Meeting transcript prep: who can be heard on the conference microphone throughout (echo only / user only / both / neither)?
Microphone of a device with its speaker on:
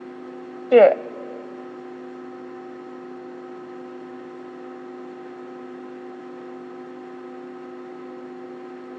user only